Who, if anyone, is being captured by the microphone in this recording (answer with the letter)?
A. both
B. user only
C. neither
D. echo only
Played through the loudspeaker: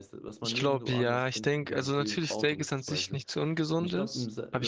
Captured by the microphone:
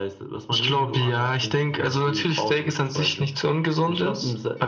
D